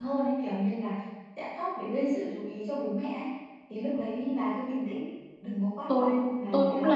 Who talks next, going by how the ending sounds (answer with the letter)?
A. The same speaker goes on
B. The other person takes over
B